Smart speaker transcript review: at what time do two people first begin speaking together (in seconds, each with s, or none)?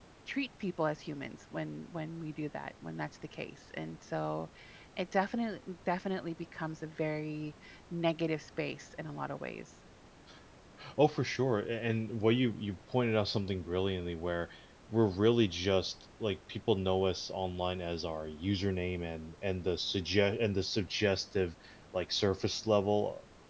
none